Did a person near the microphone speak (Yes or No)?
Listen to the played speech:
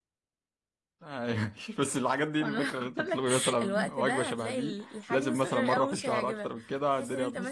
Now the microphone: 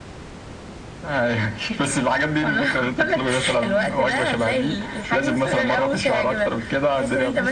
No